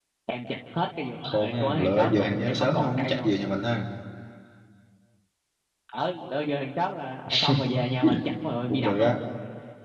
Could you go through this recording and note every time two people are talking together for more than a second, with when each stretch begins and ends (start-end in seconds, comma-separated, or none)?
1.2-3.3